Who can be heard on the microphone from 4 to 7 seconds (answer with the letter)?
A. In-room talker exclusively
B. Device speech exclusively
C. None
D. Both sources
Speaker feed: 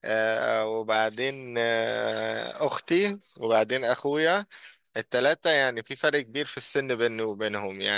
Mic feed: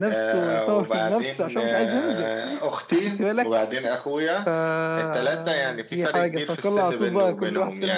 D